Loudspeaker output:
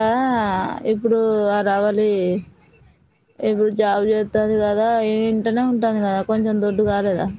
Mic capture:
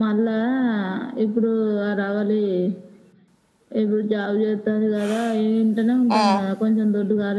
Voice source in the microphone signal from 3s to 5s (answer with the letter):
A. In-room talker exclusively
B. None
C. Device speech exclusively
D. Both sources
C